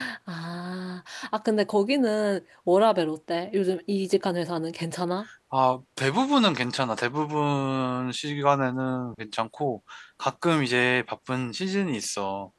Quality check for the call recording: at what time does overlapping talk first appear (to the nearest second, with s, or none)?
none